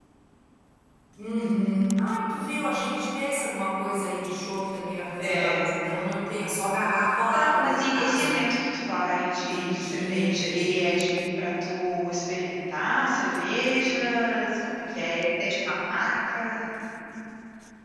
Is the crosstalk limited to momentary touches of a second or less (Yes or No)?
No